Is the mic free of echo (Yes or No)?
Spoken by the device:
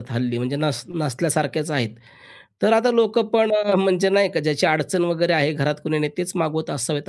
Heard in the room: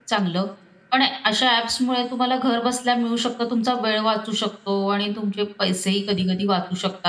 Yes